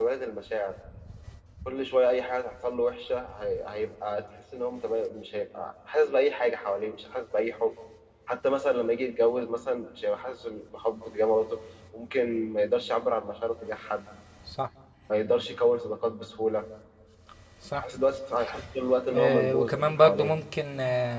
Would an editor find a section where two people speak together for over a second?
Yes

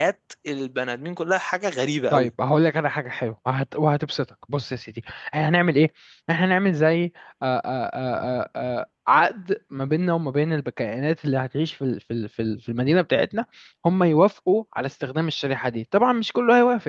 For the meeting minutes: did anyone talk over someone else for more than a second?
No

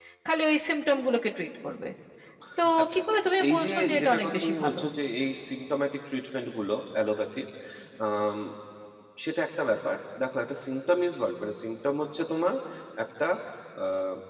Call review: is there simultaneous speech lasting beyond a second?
Yes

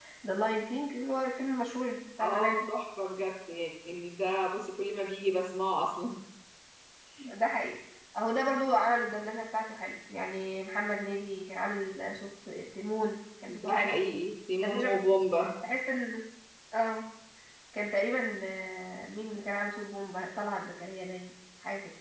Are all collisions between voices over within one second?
Yes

